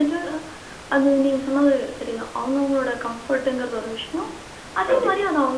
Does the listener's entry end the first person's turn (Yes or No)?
No